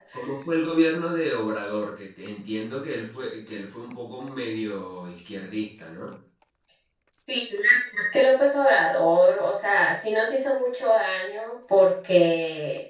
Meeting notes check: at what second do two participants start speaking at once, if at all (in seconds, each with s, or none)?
none